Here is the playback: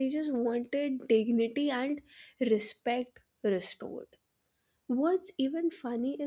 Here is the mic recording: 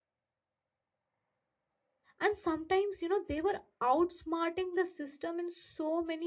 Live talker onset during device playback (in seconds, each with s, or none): 2.2 s